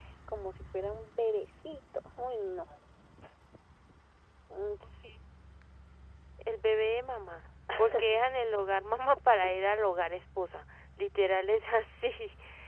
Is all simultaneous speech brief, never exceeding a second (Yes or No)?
Yes